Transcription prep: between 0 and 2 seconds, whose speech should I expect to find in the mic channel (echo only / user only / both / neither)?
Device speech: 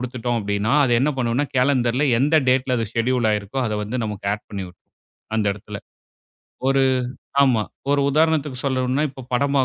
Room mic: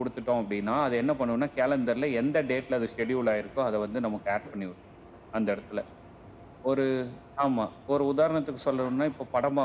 echo only